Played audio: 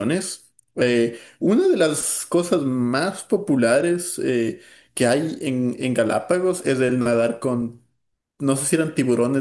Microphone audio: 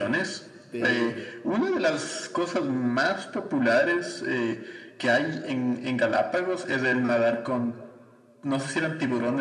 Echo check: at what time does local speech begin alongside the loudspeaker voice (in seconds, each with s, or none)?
0.6 s